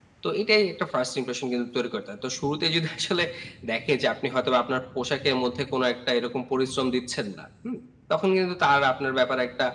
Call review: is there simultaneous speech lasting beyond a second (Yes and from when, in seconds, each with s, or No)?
No